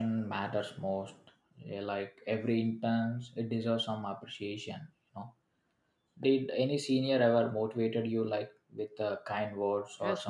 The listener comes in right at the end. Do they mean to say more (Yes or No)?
Yes